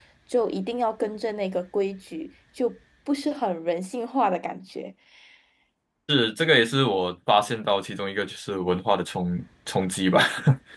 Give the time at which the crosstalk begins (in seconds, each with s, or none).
none